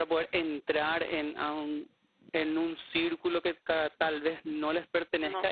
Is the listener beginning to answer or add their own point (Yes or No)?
No